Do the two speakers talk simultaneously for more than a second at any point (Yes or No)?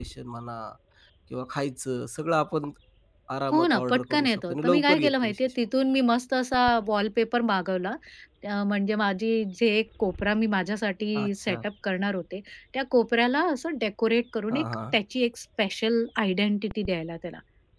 Yes